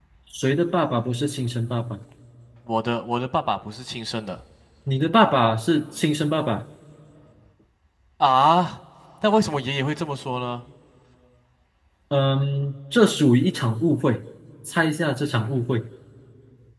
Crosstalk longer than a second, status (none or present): none